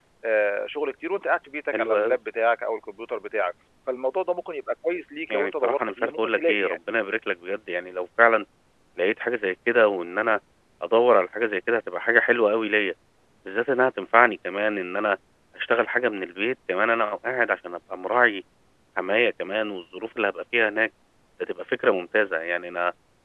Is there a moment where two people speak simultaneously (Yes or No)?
Yes